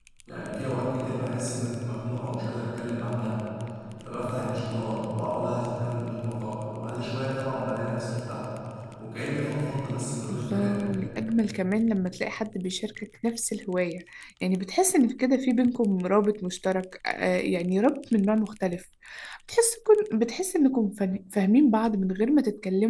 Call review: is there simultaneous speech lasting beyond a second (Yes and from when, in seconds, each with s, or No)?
No